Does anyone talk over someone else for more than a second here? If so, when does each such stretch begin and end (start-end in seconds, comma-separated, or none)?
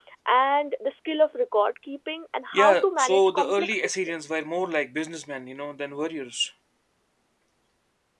2.5-4.1